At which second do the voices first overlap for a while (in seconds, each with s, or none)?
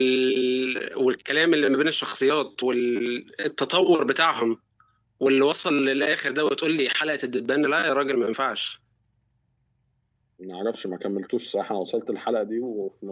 none